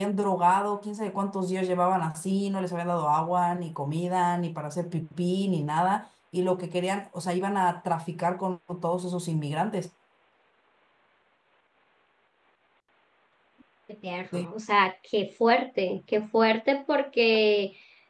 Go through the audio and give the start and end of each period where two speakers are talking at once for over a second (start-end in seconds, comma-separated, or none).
none